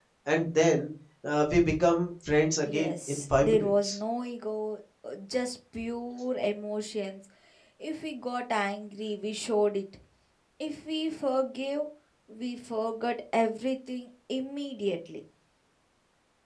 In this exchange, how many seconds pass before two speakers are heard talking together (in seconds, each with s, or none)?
2.6 s